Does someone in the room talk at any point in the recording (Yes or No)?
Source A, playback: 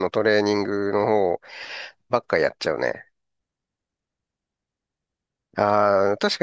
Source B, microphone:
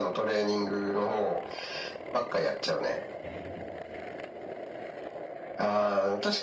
No